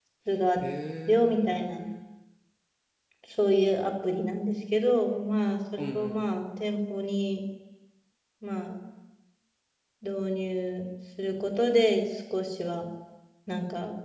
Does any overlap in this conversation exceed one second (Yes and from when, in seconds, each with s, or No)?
Yes, from 0.6 s